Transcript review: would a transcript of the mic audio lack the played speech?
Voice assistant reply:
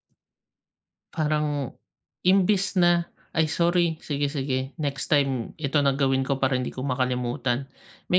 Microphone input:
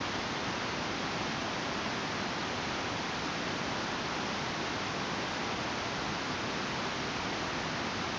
Yes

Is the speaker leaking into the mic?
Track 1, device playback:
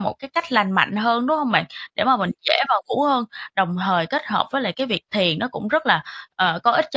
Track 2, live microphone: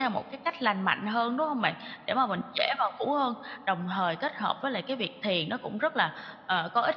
Yes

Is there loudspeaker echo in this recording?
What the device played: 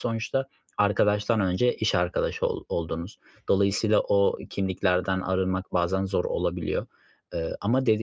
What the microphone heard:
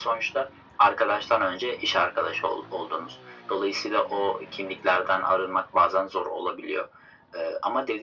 Yes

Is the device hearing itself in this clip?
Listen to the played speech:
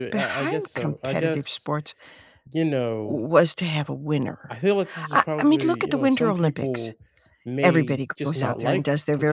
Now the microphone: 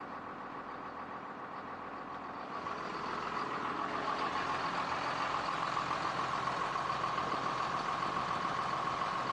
No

